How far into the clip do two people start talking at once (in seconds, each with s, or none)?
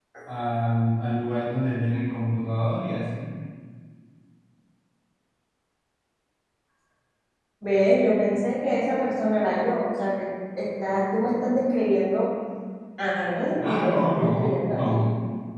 13.7 s